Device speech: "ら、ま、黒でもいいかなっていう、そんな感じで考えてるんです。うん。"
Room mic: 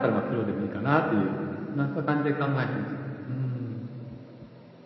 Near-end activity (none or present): none